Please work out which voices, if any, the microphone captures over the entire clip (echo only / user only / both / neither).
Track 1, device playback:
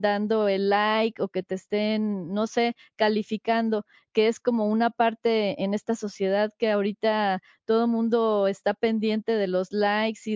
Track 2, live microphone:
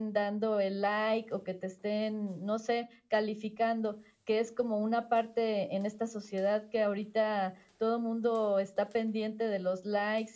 echo only